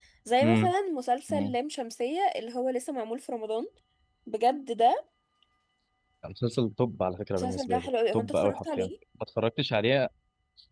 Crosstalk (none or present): present